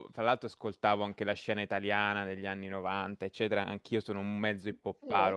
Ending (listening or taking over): listening